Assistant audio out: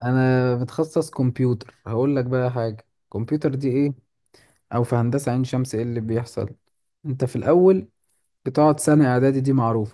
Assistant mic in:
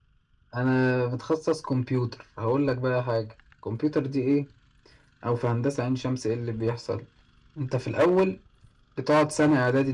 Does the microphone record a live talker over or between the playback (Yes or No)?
No